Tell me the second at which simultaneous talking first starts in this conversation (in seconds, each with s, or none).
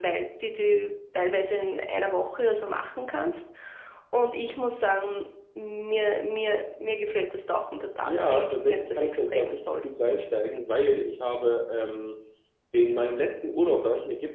8.1 s